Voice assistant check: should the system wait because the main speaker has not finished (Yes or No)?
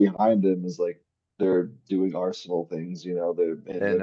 Yes